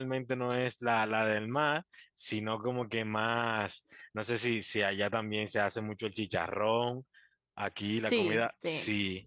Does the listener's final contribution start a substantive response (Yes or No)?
No